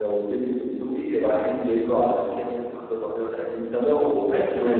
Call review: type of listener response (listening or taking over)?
taking over